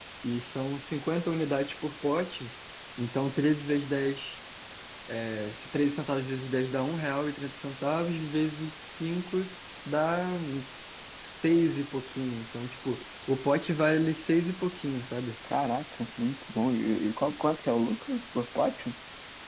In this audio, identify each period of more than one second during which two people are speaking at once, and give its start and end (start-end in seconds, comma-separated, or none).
none